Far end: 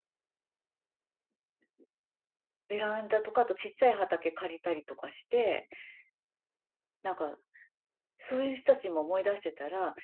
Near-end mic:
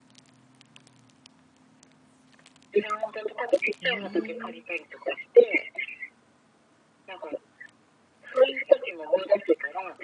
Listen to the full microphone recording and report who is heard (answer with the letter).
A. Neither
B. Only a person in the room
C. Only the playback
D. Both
D